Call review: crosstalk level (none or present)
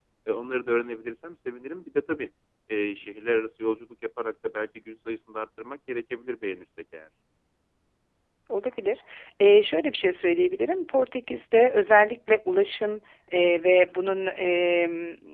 none